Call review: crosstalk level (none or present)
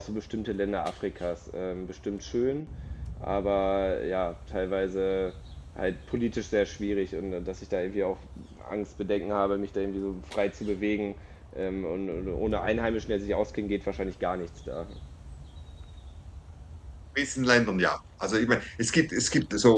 none